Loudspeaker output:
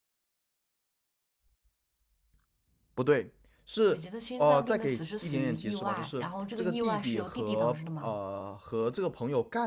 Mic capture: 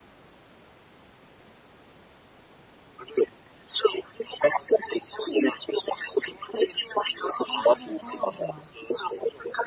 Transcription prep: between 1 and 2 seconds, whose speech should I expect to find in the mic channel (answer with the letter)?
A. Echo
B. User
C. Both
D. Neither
D